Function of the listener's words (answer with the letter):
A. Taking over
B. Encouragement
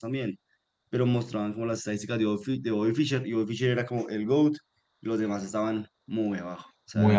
A